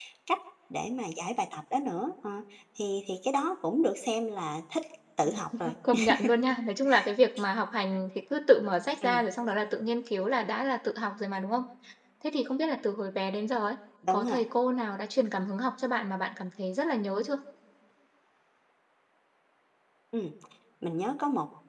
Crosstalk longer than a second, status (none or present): none